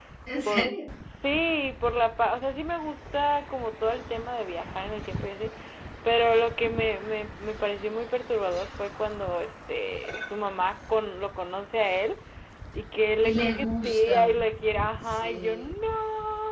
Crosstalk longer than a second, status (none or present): present